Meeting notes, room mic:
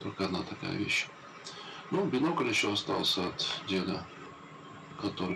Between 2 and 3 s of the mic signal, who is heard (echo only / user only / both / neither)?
echo only